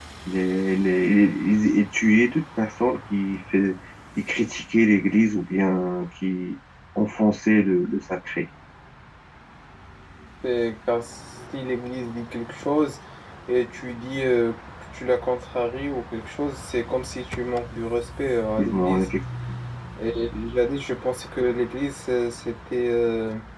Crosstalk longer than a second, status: none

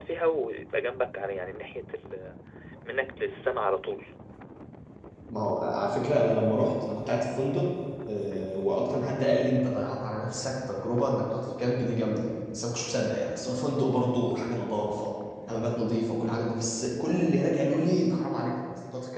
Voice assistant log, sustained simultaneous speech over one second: none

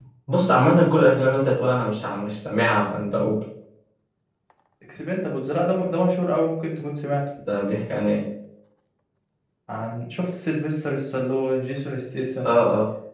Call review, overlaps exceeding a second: none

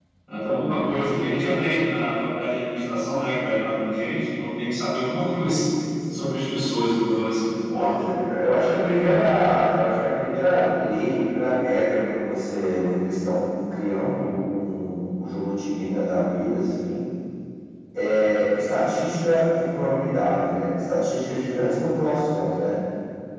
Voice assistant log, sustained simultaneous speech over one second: none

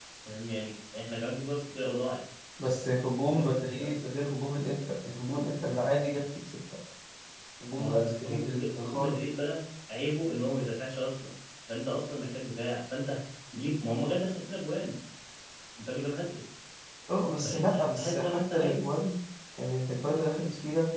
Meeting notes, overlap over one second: present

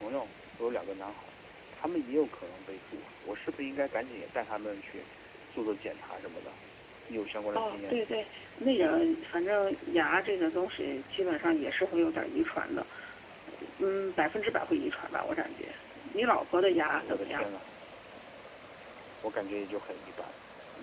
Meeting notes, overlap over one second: none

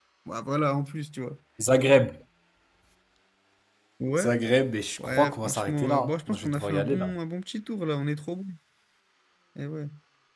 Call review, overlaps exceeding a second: present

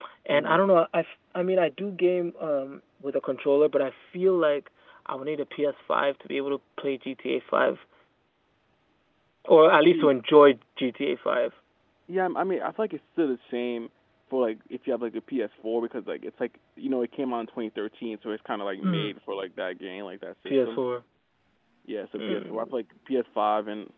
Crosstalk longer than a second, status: none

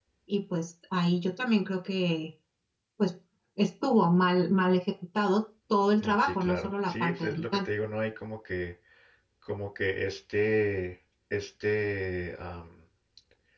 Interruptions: present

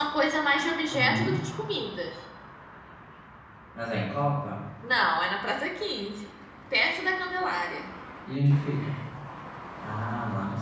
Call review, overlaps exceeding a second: none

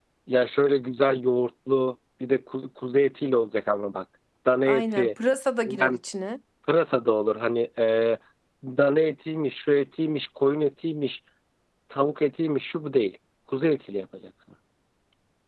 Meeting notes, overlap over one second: none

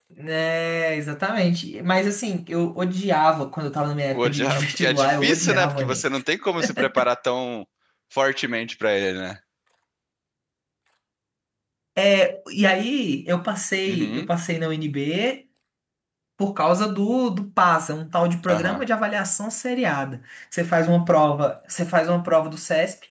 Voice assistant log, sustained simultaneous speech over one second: present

